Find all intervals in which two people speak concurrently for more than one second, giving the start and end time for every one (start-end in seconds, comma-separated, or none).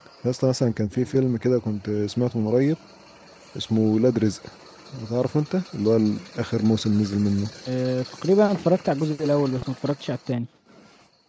none